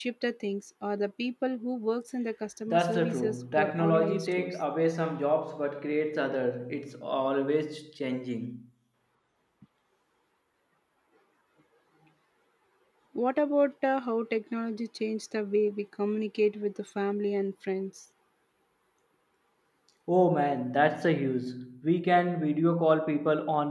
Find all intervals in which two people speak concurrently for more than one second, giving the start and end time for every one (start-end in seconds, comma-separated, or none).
2.7-4.6